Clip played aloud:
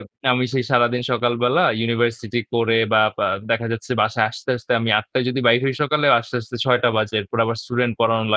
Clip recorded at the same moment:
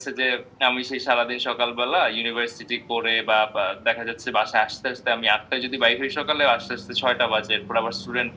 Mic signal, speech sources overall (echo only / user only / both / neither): echo only